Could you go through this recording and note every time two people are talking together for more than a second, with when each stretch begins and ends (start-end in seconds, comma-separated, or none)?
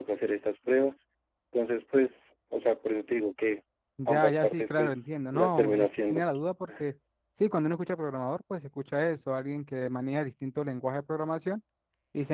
4.1-6.2